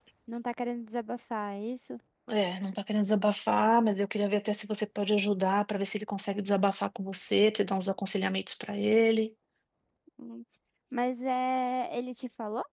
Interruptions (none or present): none